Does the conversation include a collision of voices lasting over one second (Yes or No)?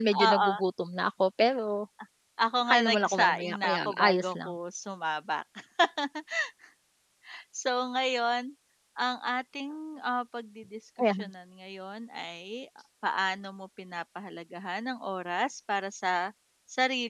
Yes